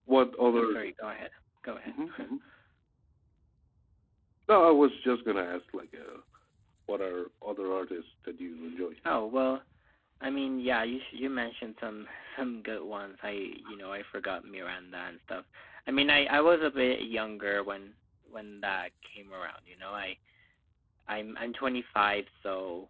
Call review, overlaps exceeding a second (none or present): none